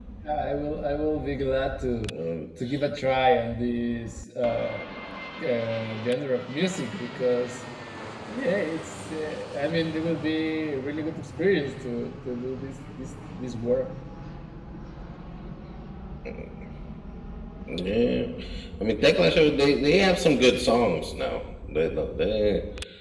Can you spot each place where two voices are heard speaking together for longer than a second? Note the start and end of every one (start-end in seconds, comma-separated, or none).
none